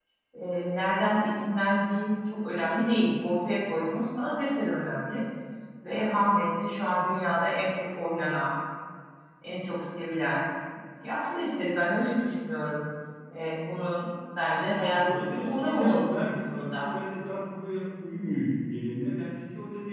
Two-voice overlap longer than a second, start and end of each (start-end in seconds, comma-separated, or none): 14.7-16.8